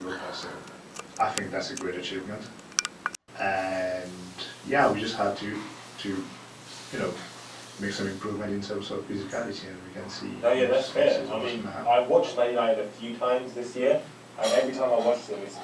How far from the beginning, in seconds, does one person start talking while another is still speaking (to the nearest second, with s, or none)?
10 s